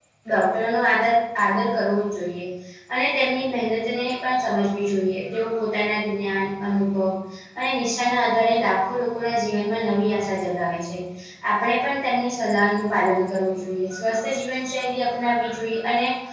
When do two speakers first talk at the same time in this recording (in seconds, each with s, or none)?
none